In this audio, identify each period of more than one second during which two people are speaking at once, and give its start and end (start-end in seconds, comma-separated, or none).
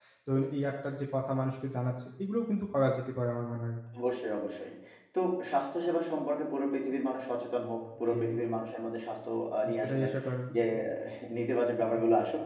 none